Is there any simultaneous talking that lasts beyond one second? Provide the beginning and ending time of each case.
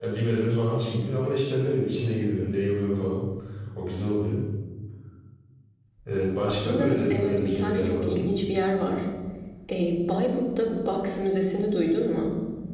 6.5-8.3

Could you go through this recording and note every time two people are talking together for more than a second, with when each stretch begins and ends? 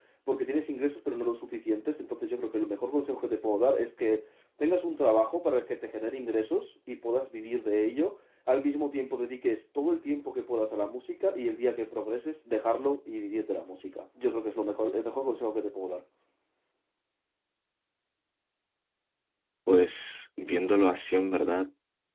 none

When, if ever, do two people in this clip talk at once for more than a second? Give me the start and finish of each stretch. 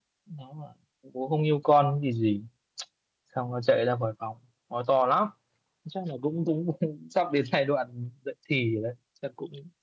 none

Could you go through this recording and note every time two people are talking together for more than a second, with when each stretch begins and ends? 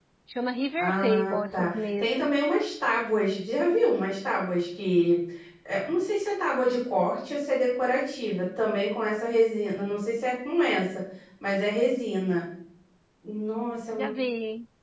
0.8-2.2

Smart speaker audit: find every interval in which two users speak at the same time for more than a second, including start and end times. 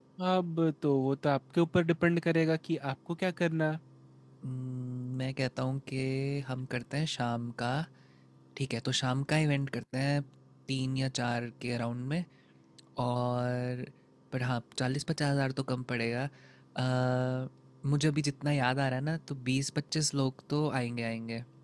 none

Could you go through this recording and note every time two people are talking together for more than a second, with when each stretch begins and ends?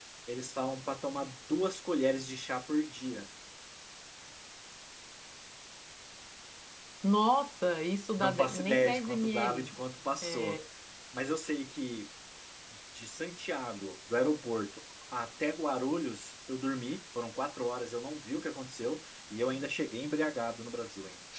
8.2-9.7

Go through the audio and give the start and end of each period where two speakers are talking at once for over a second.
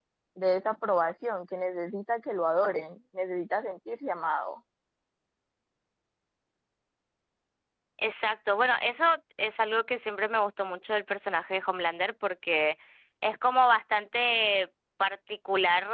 none

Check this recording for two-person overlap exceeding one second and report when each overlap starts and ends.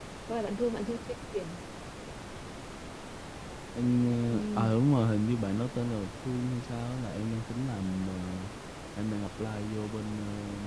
none

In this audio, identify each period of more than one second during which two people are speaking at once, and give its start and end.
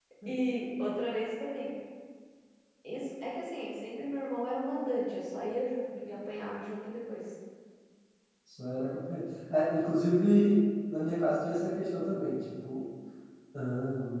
none

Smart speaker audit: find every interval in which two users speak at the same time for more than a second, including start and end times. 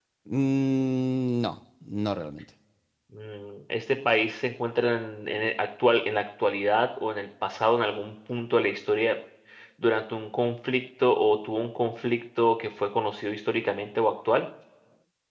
none

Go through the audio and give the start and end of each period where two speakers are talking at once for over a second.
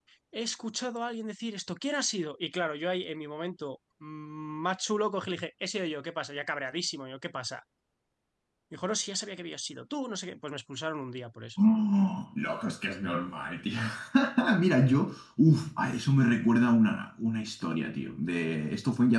none

